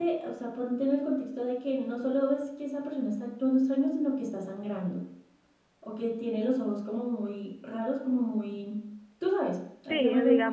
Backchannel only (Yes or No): No